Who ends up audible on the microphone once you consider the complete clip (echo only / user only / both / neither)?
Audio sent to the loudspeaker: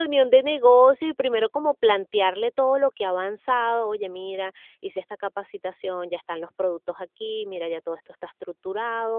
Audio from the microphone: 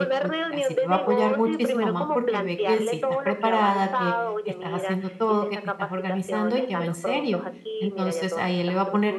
both